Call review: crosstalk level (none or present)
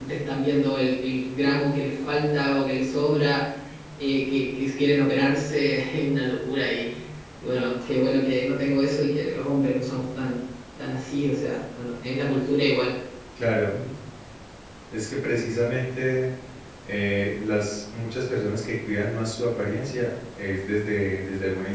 none